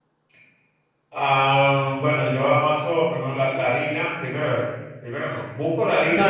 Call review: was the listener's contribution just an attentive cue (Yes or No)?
No